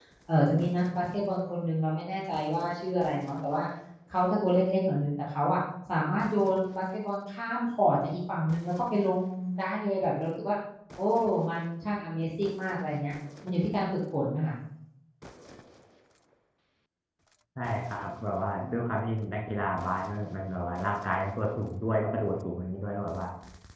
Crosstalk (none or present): none